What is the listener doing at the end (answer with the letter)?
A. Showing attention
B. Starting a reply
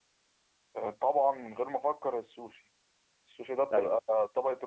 A